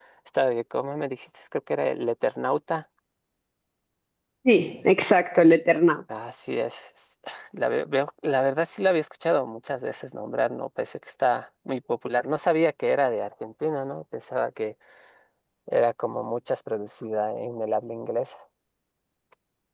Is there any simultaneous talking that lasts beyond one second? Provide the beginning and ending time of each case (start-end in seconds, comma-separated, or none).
none